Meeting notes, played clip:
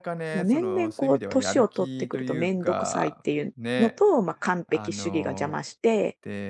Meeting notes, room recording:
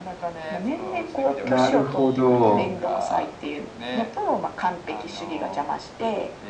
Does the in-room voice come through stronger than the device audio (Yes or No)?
Yes